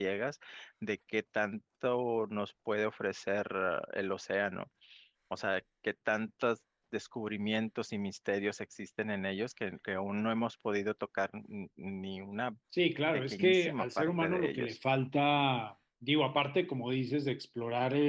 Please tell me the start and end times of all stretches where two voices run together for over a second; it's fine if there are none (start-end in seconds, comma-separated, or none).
13.3-14.8